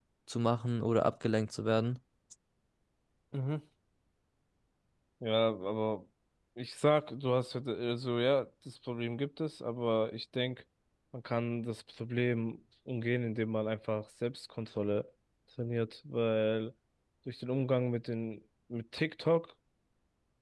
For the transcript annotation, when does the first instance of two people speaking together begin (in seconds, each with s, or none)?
none